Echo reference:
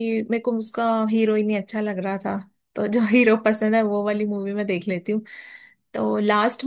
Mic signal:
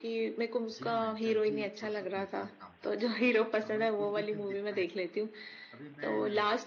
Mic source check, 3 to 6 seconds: both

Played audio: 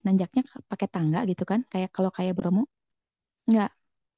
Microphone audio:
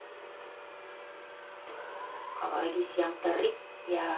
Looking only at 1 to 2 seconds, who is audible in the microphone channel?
neither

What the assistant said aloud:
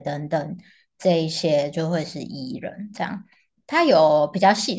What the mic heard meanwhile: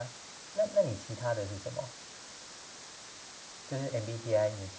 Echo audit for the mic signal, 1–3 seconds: user only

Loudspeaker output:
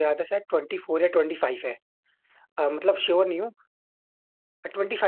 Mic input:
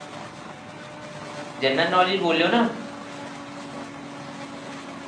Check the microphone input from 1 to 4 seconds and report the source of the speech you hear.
user only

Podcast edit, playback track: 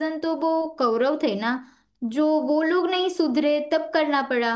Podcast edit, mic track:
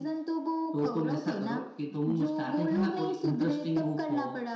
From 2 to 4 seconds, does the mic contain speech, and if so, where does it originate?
both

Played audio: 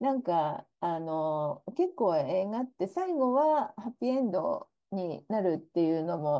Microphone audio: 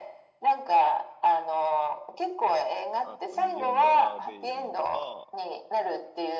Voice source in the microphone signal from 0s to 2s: echo only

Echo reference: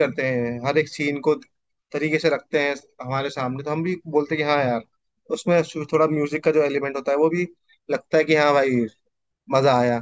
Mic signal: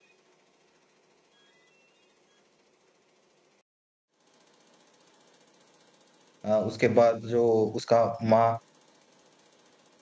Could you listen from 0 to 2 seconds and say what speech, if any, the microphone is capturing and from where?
neither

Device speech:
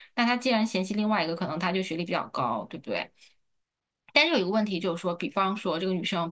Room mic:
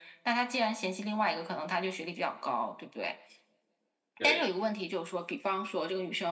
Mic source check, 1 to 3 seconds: echo only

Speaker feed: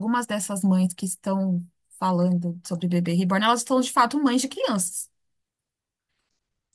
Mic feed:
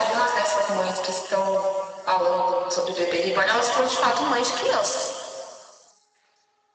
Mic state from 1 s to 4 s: echo only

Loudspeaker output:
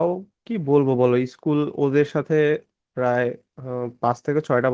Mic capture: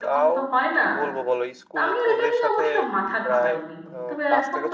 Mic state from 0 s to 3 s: both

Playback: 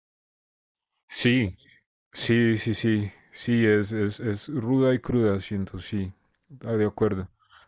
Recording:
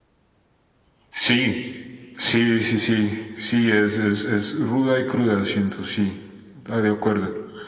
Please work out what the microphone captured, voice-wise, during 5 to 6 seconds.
echo only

